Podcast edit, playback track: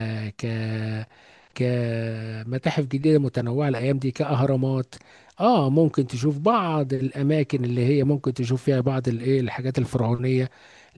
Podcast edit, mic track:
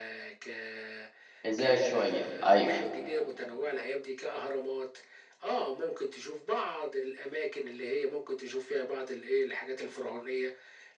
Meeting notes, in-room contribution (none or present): present